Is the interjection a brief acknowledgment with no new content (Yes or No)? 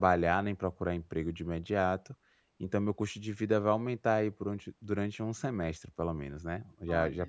Yes